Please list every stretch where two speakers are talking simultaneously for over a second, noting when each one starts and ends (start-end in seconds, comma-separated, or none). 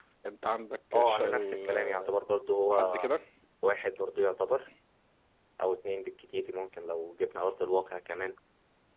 0.9-2.2